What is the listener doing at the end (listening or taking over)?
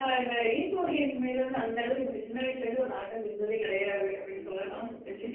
taking over